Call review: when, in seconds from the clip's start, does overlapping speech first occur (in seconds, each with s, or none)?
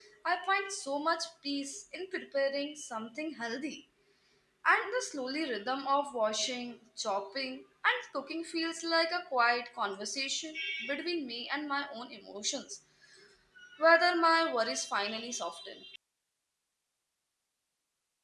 none